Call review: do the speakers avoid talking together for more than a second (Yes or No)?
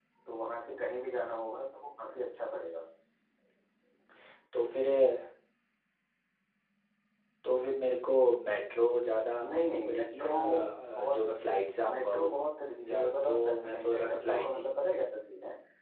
No